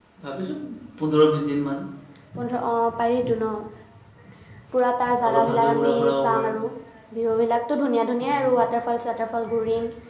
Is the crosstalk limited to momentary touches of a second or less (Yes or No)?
No